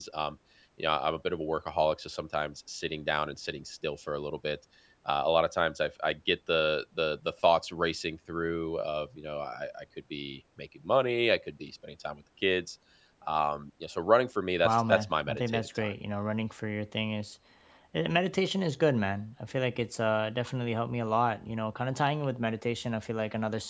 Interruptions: present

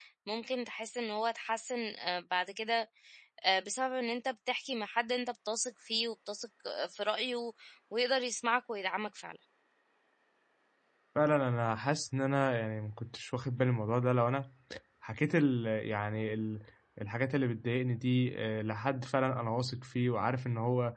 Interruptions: none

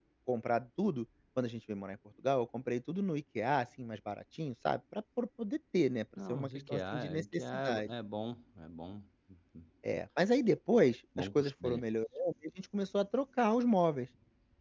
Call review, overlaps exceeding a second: present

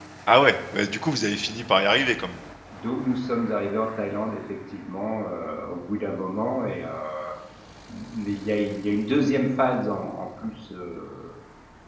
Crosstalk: none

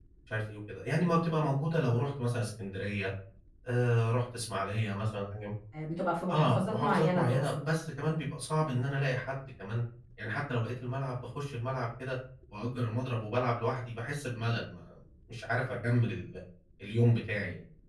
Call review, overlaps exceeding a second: present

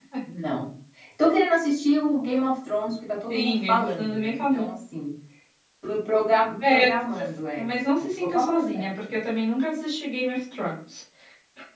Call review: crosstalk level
present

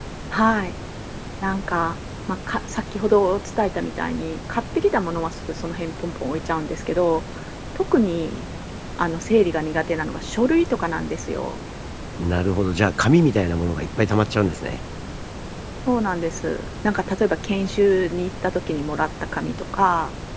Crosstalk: none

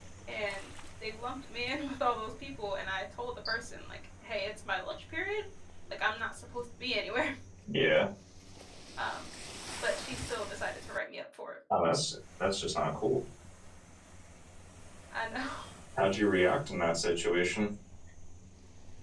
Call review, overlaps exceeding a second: none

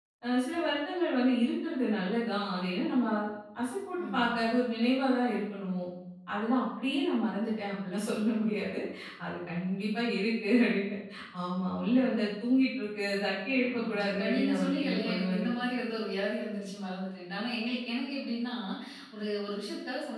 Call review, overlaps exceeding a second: present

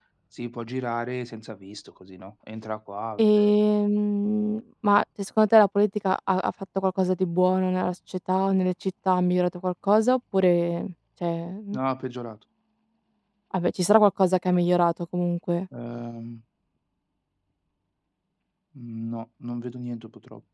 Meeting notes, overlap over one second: none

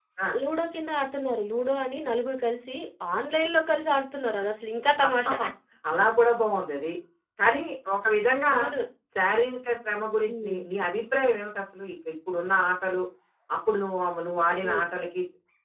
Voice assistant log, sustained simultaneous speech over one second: none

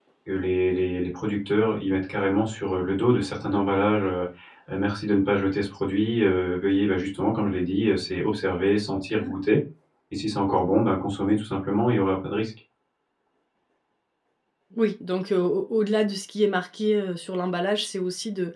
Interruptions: none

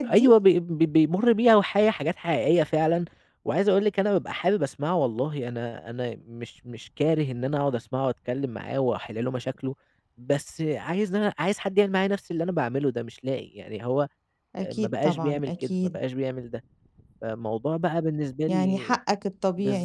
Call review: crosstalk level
present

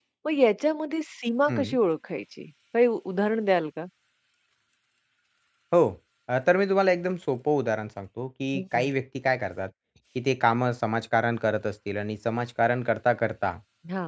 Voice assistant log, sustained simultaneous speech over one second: none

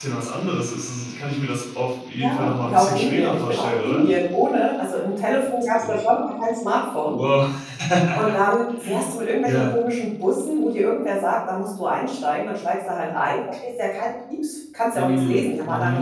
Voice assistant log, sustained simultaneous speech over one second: present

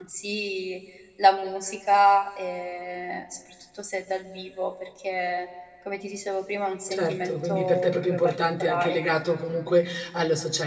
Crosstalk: present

